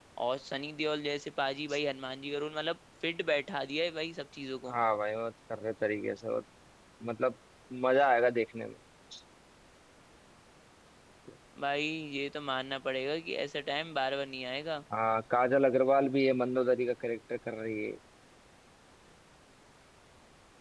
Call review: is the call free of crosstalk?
Yes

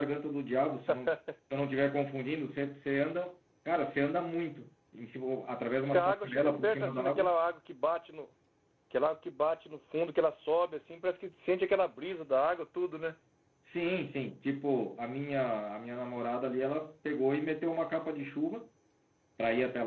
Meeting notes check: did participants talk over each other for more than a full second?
Yes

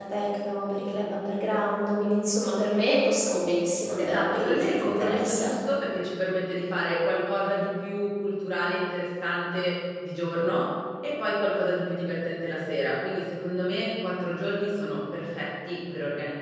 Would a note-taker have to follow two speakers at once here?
Yes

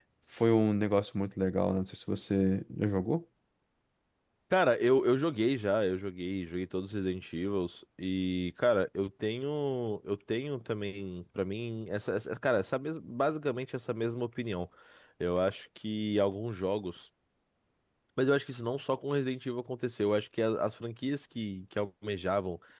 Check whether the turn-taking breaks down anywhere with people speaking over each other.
No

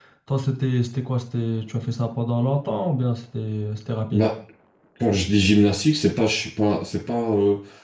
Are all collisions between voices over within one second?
Yes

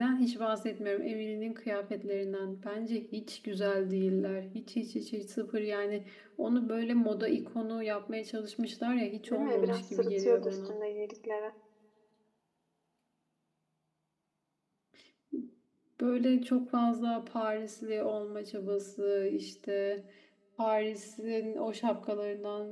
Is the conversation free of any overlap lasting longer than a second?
No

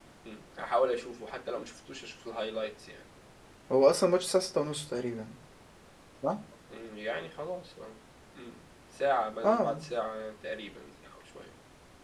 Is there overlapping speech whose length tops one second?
No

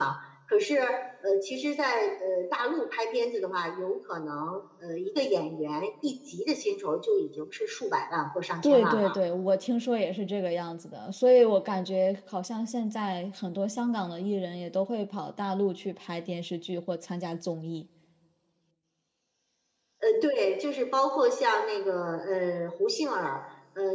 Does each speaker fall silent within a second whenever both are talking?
Yes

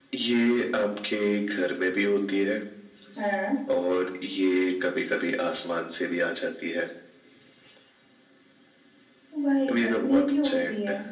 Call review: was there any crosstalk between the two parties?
Yes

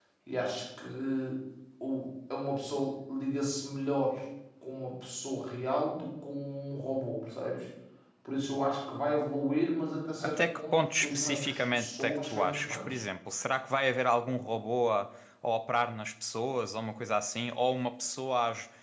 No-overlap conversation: No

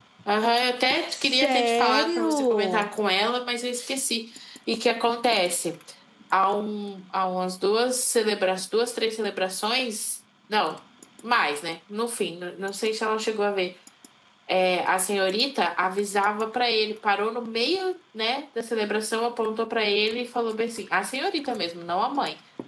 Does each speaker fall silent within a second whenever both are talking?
No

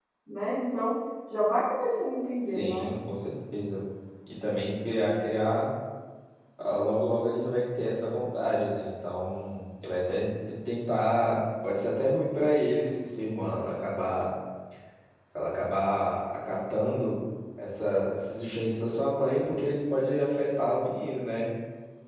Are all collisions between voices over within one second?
Yes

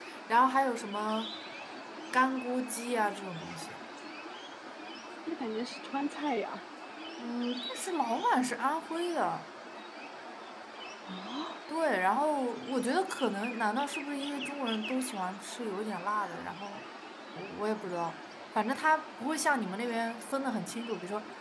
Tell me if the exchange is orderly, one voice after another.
Yes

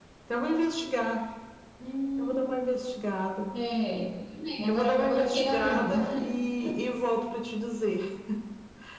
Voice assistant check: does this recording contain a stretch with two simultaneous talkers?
Yes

